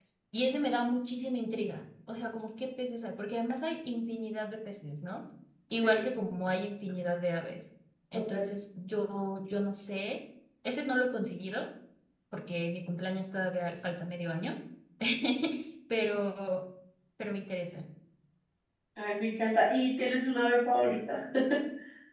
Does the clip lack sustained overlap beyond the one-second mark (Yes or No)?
Yes